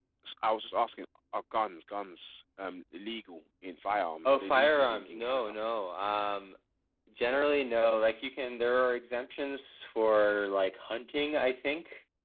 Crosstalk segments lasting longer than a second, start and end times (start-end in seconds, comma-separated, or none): 4.2-5.5